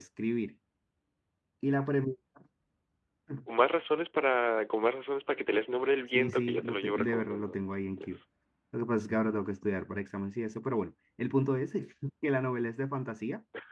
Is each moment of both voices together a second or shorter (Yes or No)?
No